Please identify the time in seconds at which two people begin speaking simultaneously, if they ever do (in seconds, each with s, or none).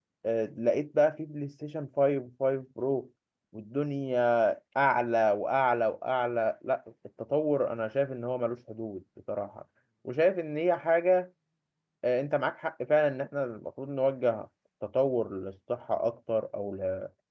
none